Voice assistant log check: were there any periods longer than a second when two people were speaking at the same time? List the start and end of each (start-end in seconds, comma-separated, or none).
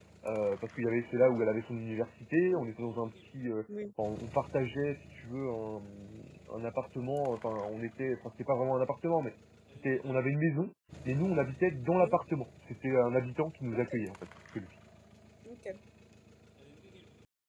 none